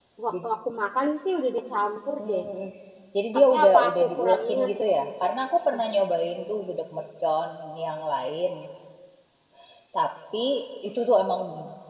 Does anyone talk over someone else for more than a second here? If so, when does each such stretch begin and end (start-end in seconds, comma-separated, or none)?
3.5-4.8